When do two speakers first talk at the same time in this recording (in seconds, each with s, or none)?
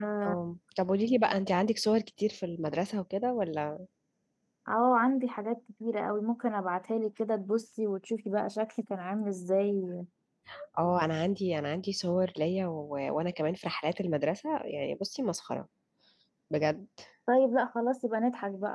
none